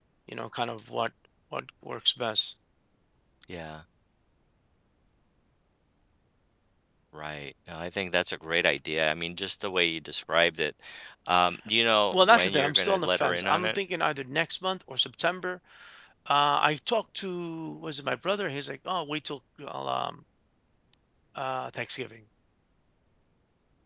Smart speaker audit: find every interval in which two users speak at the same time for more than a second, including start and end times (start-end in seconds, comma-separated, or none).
12.1-13.8